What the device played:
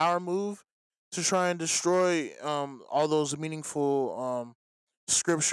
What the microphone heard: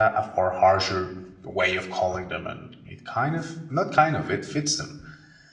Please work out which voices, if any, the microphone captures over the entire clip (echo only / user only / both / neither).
user only